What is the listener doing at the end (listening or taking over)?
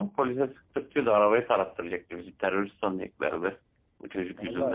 taking over